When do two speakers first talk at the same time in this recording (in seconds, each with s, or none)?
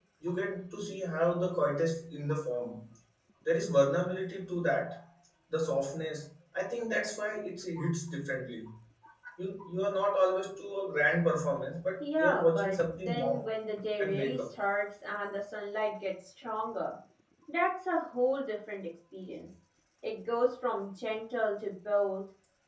12.1 s